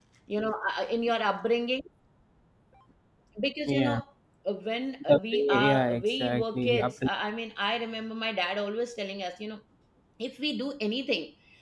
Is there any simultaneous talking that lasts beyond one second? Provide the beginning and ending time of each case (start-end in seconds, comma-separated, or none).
5.1-7.1